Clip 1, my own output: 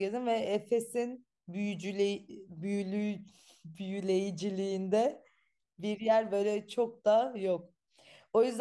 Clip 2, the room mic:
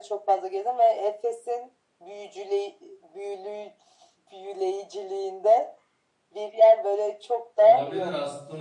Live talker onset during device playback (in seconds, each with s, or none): 7.6 s